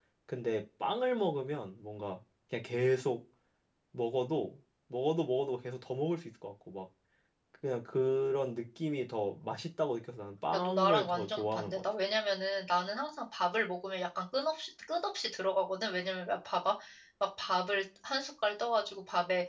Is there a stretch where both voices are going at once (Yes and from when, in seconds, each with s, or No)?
Yes, from 10.5 s